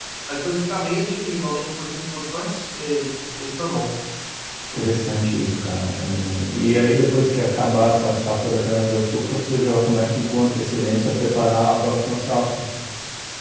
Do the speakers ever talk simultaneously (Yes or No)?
No